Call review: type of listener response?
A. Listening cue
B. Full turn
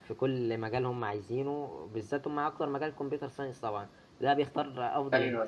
A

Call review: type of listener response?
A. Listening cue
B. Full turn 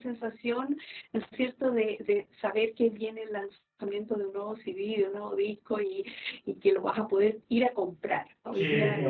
B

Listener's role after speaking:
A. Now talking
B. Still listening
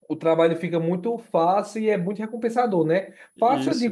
B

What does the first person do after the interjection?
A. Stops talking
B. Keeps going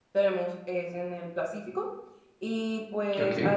B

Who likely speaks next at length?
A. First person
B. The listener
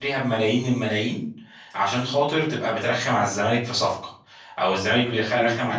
A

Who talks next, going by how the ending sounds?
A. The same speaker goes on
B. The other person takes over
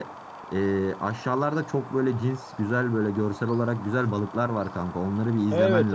B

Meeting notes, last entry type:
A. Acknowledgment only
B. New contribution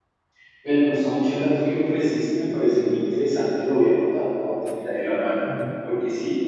A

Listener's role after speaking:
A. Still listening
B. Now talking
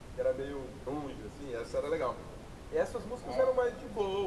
A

